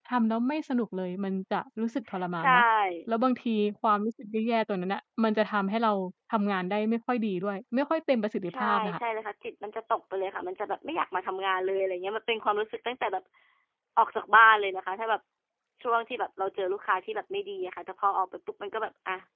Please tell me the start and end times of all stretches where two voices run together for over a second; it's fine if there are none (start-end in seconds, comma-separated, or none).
none